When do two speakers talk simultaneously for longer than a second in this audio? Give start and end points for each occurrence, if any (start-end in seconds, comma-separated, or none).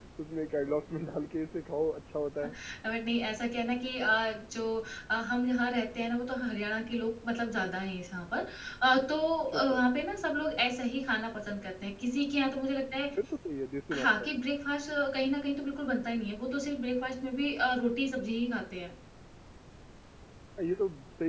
none